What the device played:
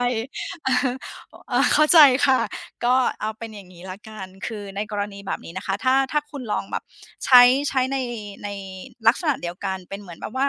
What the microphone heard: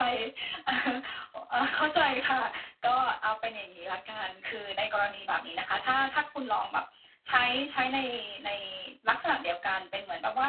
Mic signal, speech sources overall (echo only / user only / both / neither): echo only